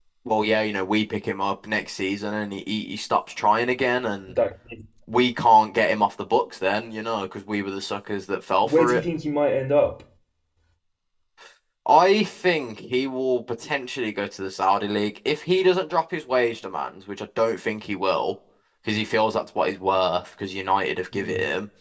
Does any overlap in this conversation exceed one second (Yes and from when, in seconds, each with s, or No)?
No